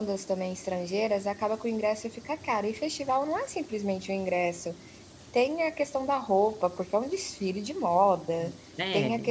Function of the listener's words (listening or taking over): listening